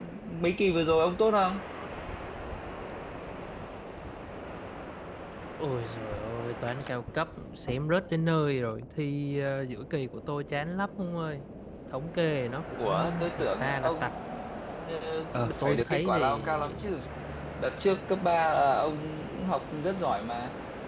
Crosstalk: present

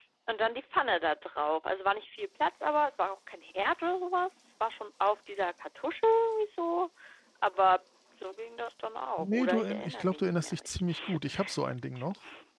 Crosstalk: present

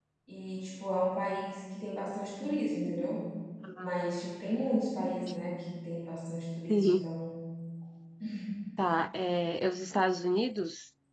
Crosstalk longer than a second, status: none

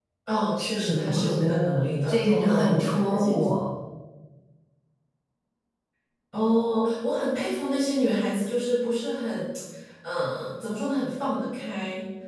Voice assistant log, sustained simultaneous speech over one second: present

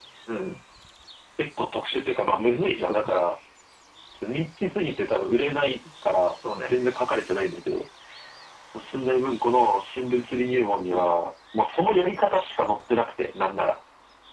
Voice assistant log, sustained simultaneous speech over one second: none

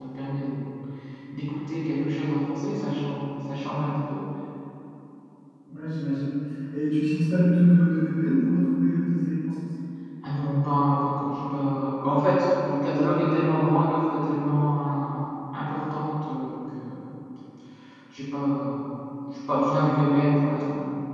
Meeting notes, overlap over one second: none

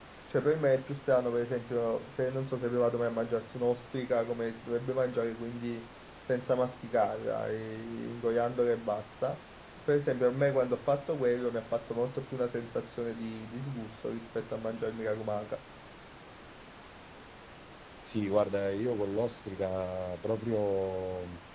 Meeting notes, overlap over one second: none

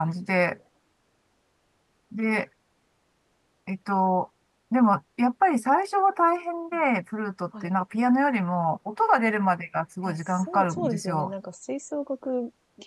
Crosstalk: present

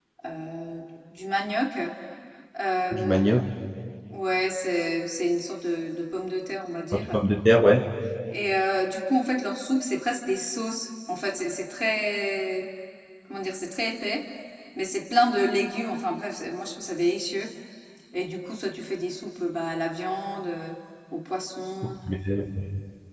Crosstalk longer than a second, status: none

